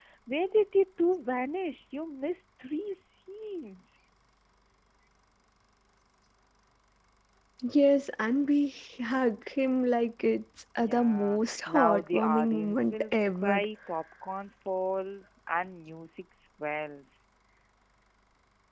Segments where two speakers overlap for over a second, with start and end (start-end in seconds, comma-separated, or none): 10.8-13.6